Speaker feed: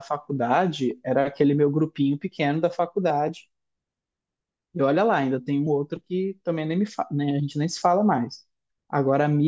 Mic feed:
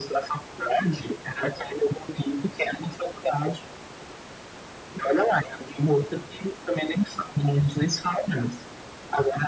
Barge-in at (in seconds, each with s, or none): none